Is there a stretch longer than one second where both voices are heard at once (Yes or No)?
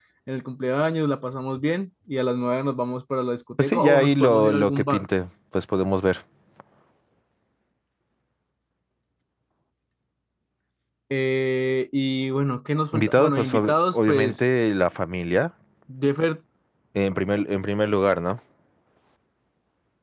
Yes